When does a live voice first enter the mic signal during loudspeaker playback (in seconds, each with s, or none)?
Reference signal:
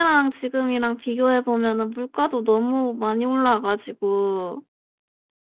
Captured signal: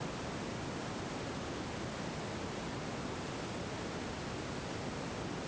none